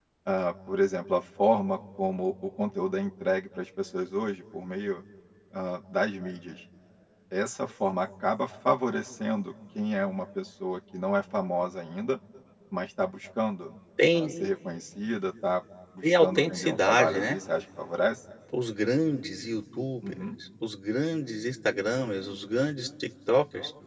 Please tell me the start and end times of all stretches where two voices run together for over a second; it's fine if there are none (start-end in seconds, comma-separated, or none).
16.0-17.4